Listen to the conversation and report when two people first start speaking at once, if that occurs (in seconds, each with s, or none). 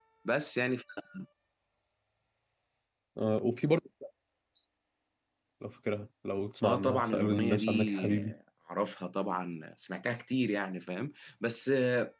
6.6 s